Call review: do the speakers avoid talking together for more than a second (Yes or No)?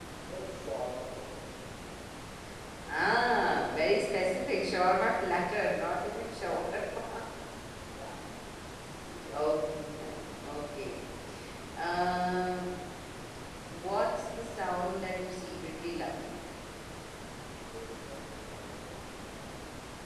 Yes